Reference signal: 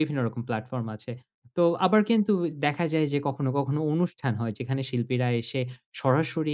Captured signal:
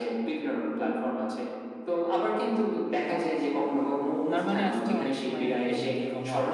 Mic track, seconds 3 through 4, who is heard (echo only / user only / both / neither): echo only